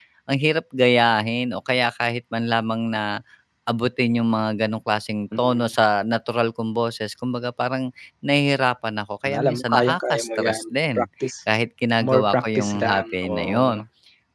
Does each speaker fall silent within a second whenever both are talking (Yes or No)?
No